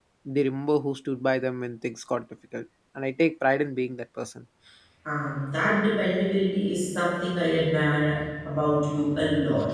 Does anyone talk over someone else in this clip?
No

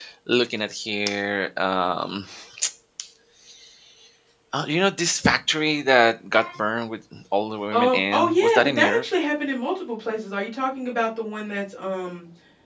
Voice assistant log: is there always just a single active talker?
No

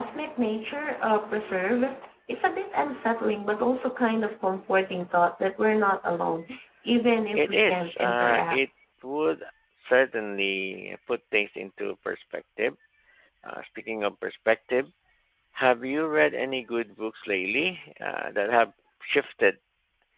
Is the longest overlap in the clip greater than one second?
Yes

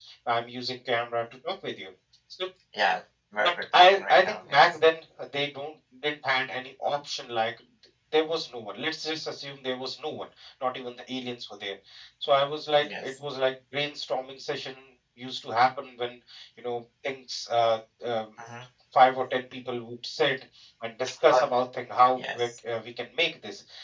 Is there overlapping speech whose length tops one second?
Yes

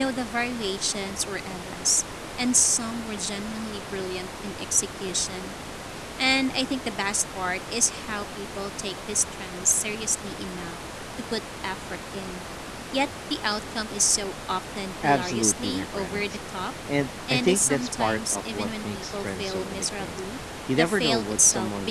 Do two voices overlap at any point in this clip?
Yes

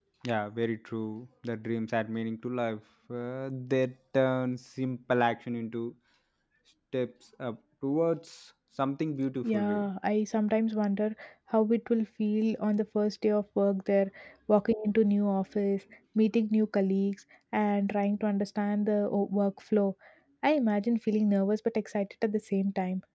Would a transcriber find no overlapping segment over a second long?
Yes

